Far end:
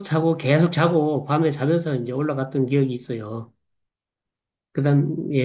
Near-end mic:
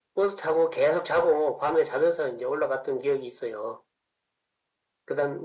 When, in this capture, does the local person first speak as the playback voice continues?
none

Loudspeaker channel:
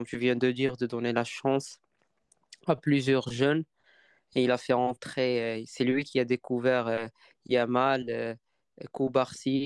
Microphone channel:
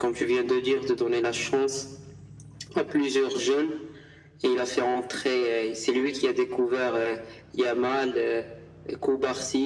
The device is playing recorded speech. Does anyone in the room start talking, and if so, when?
none

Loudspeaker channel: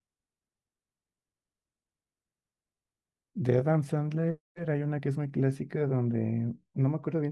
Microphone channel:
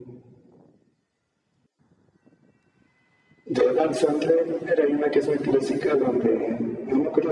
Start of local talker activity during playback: none

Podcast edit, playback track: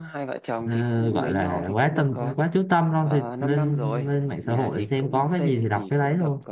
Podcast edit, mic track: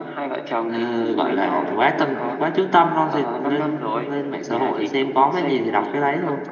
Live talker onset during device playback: none

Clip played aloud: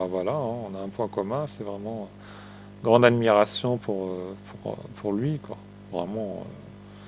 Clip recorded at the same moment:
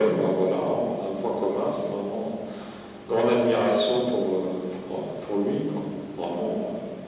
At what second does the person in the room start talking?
none

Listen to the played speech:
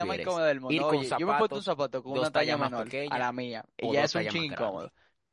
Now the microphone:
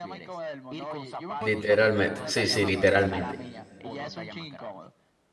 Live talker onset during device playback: 1.4 s

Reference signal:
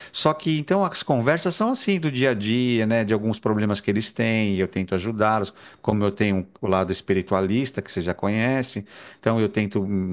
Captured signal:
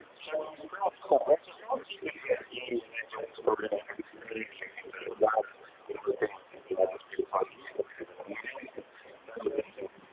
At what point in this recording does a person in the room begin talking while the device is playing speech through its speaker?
none

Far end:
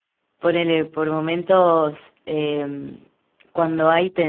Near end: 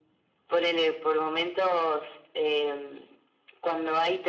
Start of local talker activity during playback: none

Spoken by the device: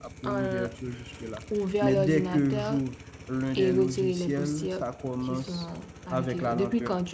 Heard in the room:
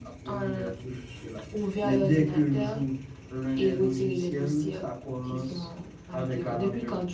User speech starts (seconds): none

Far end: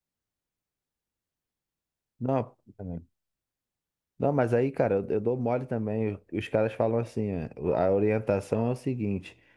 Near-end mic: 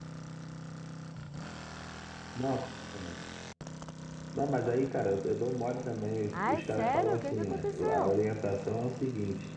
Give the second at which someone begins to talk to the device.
6.3 s

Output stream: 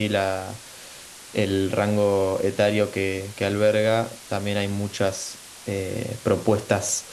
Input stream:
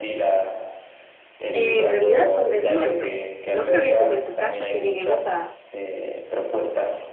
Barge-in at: 1.5 s

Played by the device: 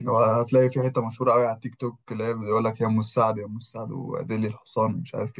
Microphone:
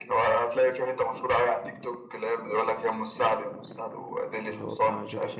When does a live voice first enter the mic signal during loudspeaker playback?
4.4 s

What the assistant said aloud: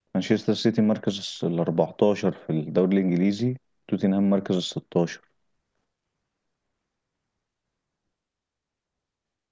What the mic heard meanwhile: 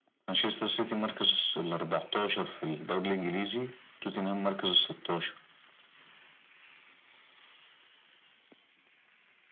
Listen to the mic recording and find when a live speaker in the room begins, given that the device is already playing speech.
none

